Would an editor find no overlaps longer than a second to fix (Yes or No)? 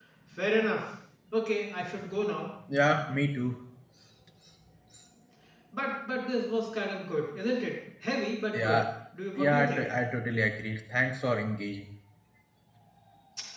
Yes